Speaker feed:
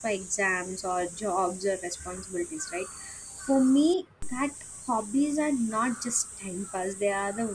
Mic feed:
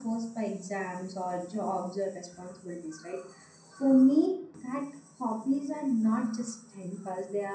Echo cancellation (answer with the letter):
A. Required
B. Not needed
A